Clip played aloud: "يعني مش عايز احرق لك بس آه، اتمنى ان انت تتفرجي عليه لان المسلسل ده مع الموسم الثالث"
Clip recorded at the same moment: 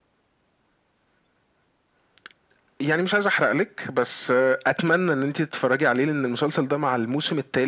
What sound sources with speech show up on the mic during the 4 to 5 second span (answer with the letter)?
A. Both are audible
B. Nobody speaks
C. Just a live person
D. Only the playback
D